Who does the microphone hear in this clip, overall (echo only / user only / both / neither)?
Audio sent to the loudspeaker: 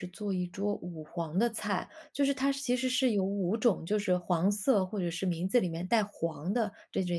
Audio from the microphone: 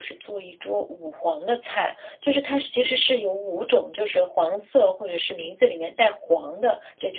echo only